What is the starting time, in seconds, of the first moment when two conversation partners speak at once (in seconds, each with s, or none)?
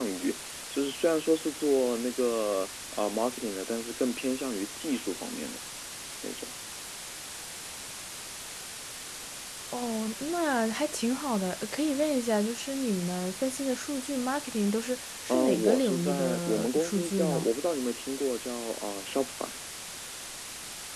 15.3 s